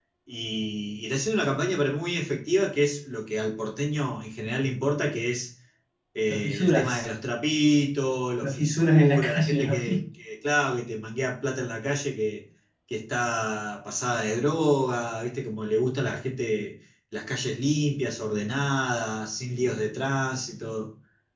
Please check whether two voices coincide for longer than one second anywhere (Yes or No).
Yes